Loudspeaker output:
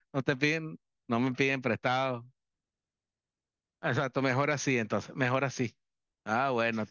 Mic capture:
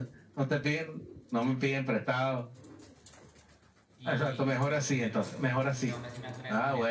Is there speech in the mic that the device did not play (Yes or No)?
Yes